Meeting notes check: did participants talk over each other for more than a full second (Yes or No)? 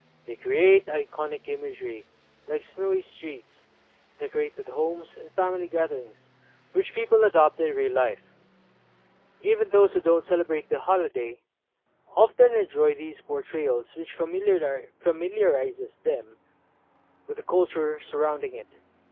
No